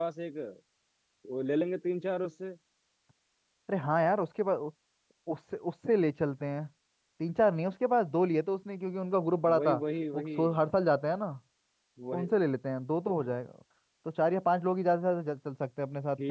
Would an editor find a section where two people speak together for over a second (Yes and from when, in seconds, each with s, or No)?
No